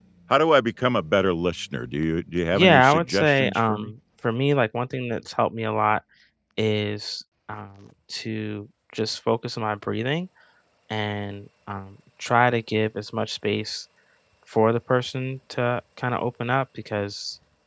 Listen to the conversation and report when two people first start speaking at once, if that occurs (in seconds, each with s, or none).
2.5 s